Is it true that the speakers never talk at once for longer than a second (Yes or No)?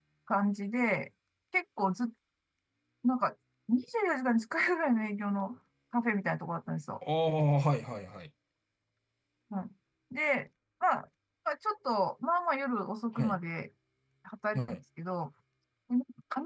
Yes